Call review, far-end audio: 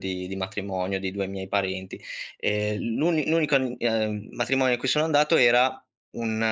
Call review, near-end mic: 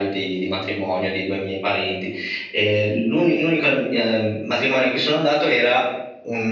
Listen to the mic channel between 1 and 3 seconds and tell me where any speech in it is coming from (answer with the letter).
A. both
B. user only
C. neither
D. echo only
D